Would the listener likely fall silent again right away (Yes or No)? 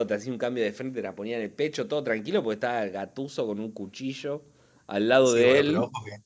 No